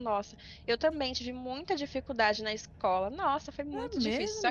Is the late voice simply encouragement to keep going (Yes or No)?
No